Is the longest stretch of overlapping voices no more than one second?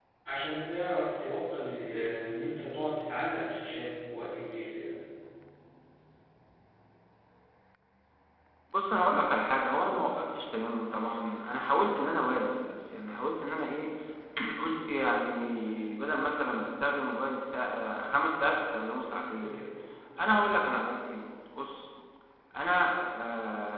Yes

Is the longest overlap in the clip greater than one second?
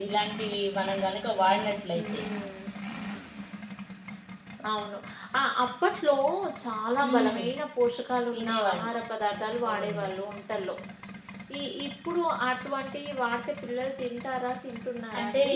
No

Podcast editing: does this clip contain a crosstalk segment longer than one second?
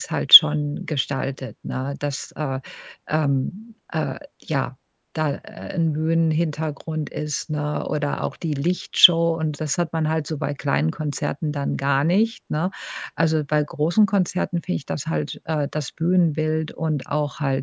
No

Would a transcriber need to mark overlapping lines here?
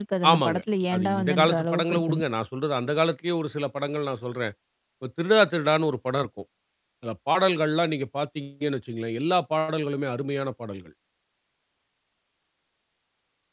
Yes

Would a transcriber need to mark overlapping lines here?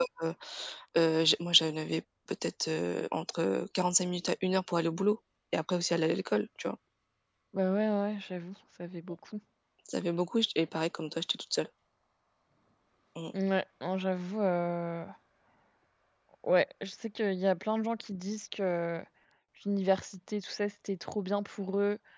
No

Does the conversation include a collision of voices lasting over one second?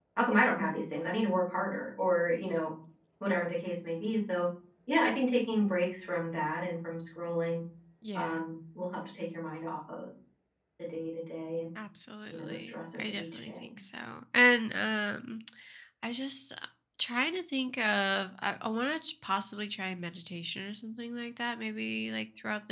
Yes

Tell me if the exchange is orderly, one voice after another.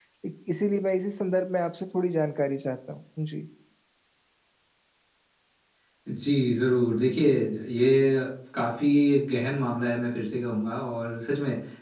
Yes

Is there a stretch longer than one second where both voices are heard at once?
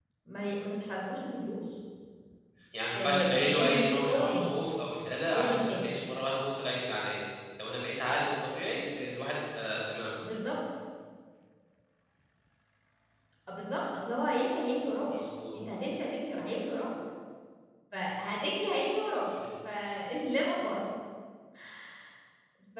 Yes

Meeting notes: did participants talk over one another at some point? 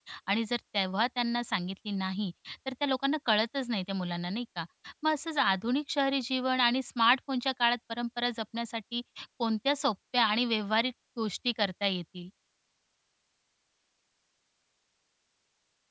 No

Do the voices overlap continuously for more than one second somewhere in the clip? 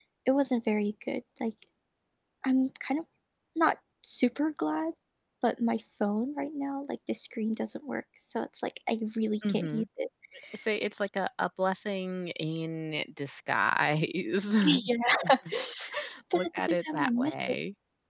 Yes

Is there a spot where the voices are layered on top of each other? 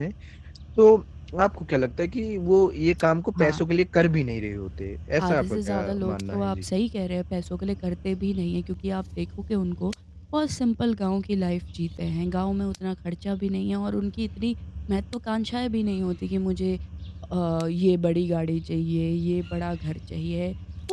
Yes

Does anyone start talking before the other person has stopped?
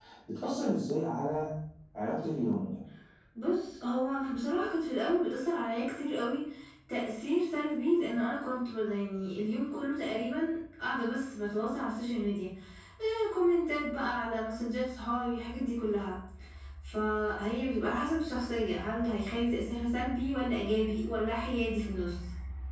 No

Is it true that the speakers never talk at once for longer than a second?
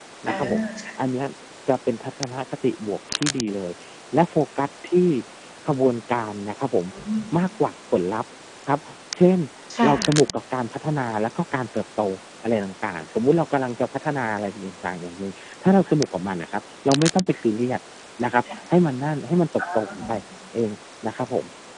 Yes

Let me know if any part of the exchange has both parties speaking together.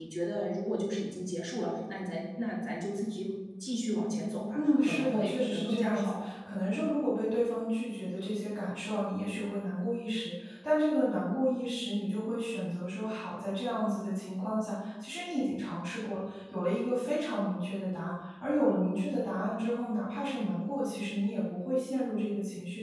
Yes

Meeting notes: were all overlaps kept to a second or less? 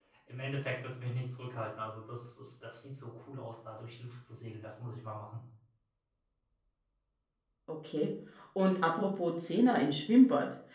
Yes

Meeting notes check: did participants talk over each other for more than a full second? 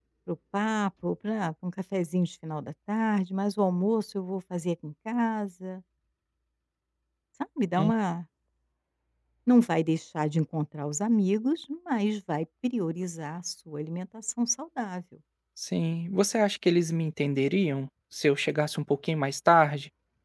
No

